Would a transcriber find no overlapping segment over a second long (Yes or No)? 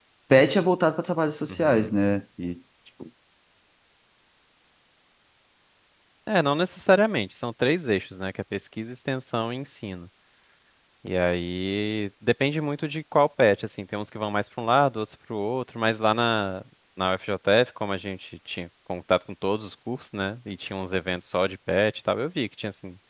Yes